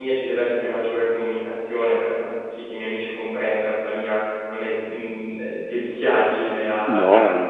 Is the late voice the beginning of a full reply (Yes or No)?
Yes